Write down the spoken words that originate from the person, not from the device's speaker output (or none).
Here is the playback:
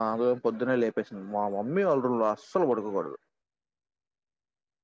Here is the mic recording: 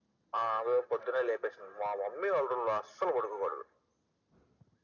none